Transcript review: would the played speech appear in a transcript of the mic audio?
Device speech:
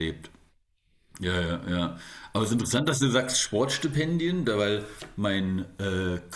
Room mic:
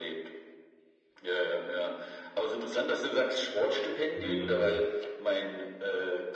Yes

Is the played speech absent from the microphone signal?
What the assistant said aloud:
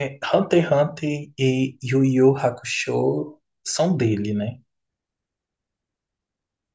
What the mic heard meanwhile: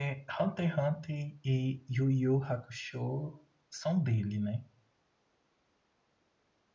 No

